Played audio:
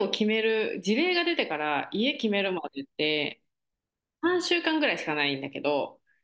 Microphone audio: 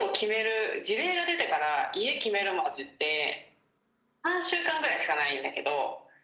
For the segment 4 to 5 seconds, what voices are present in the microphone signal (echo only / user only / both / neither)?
echo only